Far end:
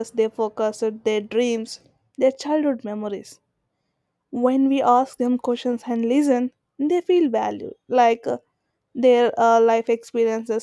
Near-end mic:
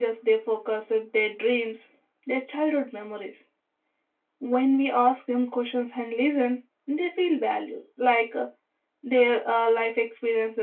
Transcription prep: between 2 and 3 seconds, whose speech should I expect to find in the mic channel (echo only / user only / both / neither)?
echo only